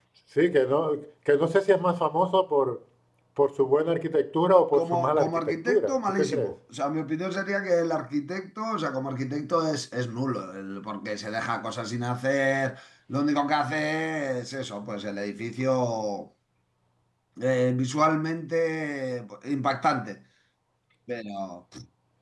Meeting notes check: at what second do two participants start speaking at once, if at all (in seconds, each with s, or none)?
4.7 s